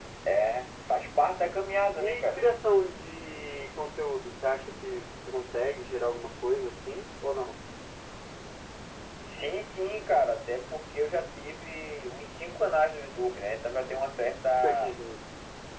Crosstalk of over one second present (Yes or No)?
No